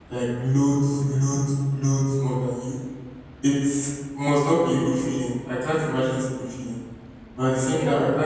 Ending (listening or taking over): listening